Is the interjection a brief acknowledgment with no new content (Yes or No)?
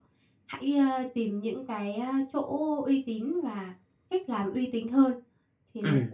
No